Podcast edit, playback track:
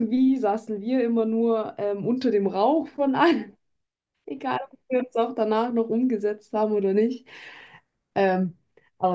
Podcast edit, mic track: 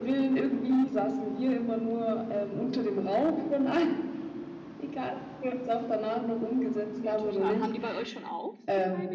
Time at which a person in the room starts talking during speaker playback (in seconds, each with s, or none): 7.0 s